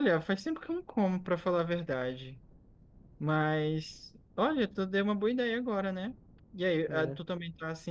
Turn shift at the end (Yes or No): No